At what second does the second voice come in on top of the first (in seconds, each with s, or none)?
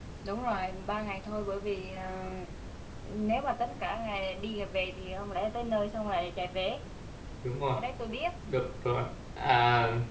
none